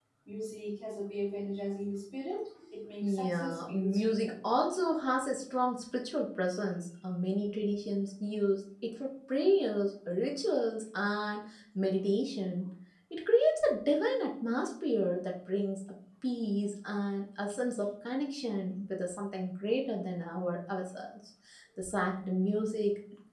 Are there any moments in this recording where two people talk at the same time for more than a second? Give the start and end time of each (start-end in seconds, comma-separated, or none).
3.0-4.3